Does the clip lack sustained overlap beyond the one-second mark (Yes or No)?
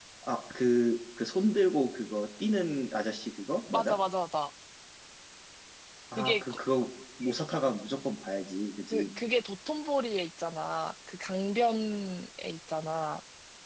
Yes